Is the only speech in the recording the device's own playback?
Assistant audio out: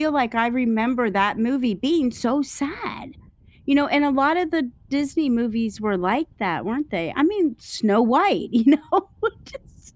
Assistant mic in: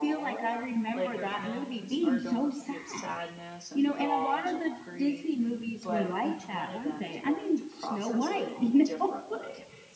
No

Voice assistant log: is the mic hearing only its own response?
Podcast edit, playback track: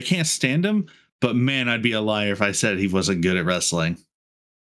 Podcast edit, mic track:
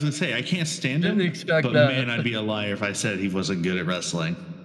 No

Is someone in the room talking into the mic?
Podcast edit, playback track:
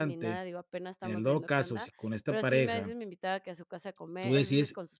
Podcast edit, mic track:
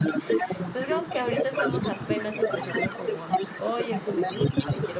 Yes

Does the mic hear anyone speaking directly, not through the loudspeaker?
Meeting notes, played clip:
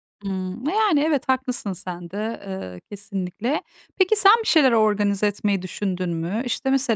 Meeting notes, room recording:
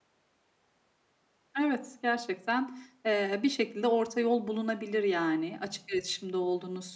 Yes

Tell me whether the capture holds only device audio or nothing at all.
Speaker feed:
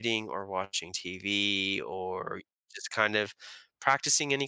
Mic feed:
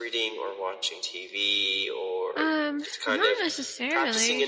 No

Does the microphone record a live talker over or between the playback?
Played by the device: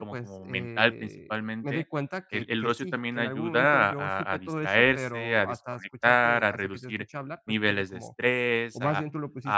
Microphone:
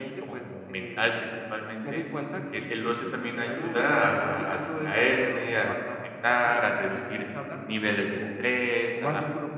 No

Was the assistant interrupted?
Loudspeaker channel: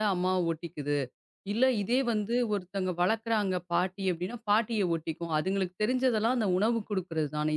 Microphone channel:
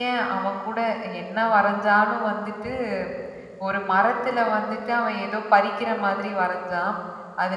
Yes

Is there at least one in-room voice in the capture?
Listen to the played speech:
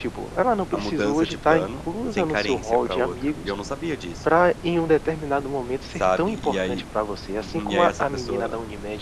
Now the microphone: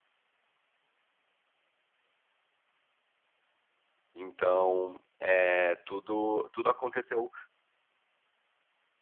Yes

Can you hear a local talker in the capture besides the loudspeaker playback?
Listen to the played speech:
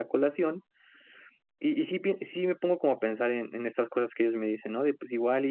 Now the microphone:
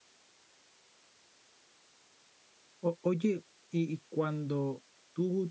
Yes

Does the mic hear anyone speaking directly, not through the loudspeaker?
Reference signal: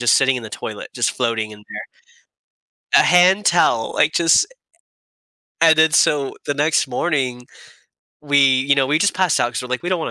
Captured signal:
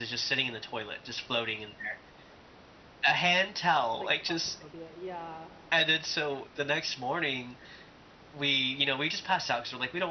Yes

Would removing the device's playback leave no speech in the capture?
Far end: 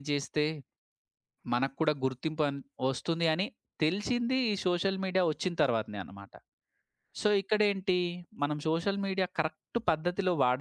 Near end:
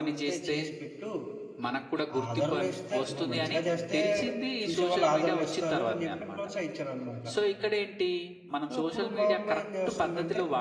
No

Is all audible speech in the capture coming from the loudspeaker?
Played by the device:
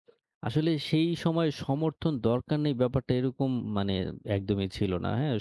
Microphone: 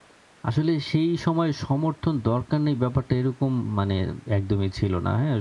Yes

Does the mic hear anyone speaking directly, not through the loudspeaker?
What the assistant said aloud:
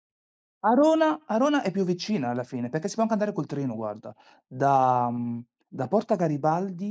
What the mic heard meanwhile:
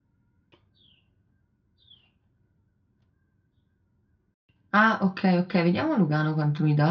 Yes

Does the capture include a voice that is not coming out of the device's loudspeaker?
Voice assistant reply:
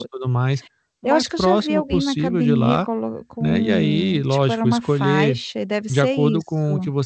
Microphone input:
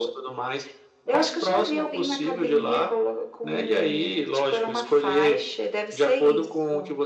No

